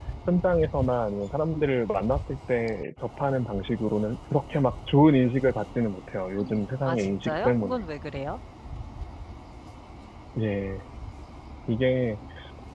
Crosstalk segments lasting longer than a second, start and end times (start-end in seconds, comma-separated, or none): 6.4-7.8